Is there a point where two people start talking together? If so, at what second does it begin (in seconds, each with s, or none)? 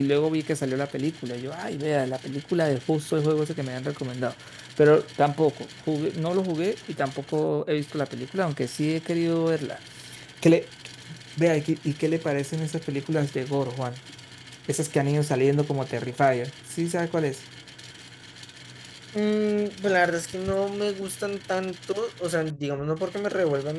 none